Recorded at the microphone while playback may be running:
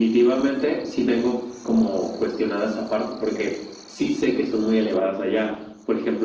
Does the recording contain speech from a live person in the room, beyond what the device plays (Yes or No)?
No